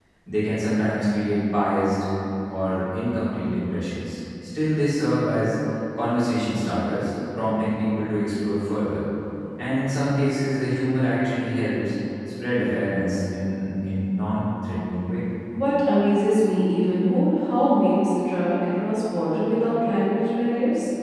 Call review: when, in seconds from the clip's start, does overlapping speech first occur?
none

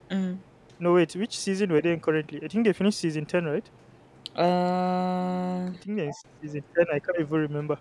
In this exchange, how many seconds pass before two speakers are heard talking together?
none

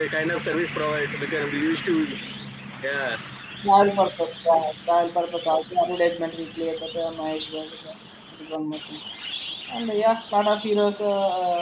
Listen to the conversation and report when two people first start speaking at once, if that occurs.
none

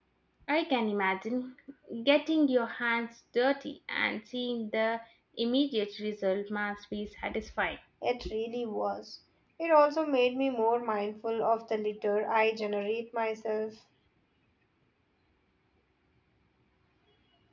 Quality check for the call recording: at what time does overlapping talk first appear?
none

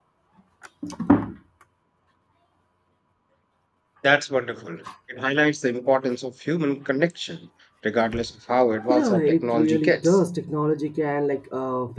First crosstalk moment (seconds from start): 8.9 s

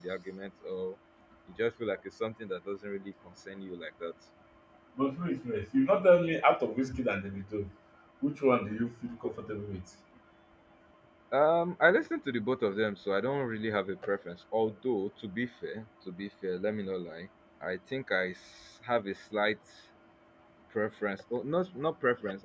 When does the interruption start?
none

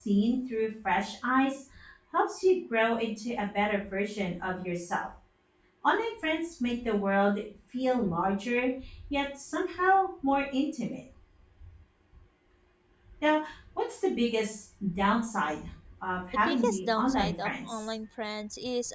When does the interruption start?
16.3 s

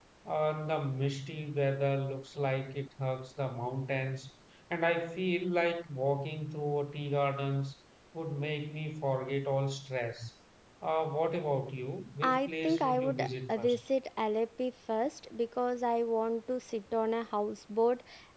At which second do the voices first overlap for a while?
12.2 s

